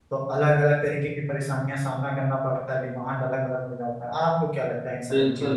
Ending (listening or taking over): taking over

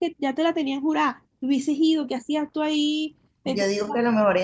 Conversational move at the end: taking over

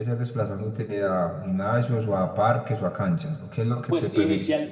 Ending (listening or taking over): taking over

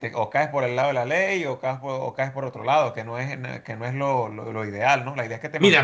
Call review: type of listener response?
taking over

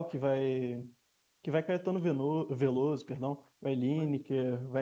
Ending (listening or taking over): listening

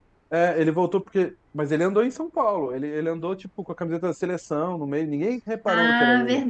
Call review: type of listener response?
taking over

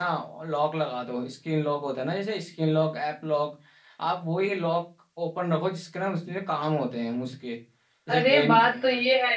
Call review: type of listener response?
taking over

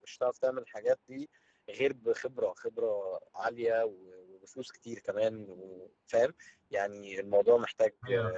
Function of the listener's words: taking over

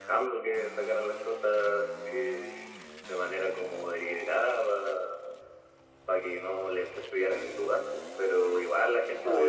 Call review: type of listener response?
listening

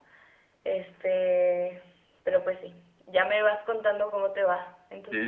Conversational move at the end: taking over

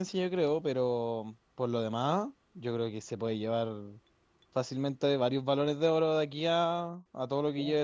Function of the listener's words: taking over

